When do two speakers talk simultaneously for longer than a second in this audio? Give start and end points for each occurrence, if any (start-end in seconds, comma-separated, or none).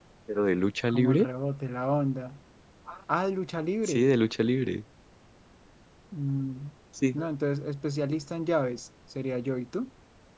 none